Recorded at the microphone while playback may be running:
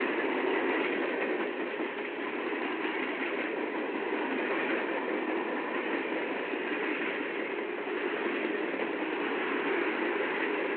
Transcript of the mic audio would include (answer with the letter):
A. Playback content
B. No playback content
B